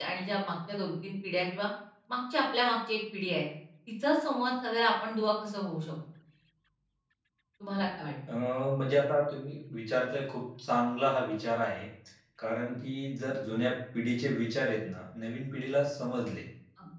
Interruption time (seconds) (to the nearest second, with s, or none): none